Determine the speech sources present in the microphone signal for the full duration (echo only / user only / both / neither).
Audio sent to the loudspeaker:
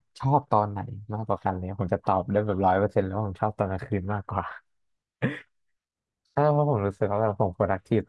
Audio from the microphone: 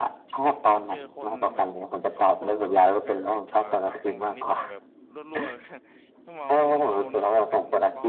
both